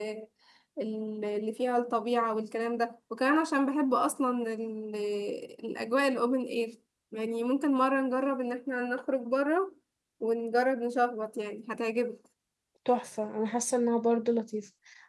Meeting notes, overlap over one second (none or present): none